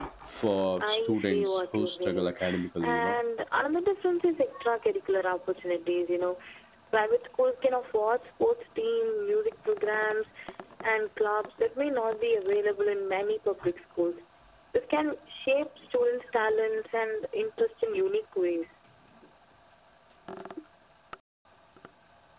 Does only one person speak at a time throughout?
No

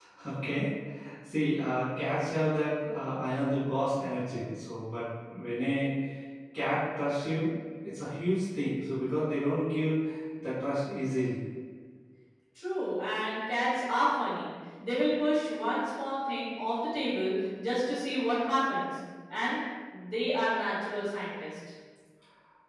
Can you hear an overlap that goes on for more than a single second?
No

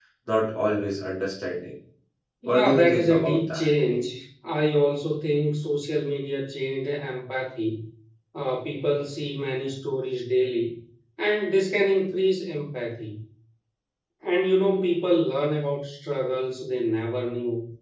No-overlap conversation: No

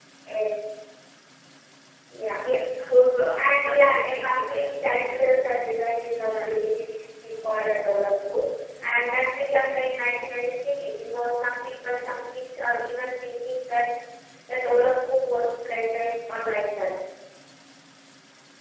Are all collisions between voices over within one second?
No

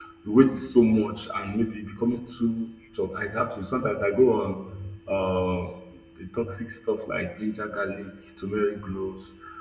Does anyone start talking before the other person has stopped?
No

